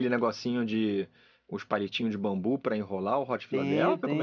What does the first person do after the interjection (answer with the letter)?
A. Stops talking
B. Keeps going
A